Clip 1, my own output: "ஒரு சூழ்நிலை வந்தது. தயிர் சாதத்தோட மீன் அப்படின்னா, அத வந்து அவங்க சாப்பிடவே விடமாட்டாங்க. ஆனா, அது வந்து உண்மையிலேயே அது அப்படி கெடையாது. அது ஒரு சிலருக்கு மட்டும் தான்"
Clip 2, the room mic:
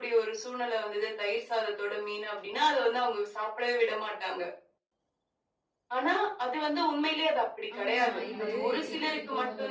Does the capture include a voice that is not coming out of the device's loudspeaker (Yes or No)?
Yes